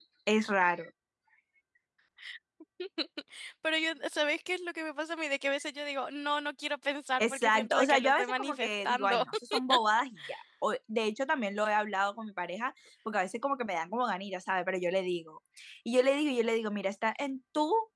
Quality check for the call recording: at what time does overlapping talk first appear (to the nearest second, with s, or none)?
7 s